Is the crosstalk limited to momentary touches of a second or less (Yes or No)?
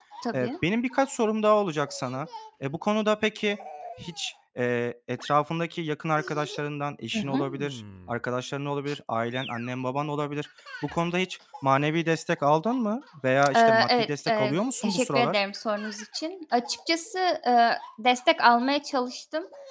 No